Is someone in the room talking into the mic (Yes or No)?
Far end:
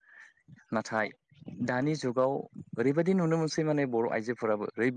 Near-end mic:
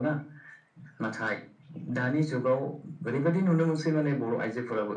No